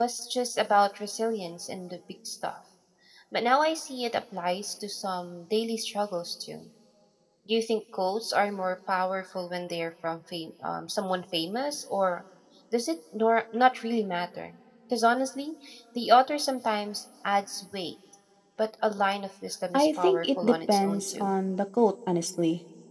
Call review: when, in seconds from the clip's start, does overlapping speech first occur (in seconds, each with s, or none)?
19.7 s